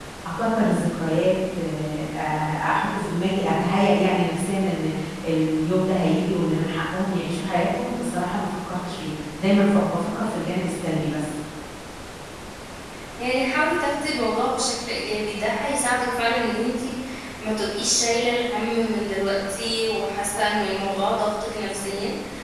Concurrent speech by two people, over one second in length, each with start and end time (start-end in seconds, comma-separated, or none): none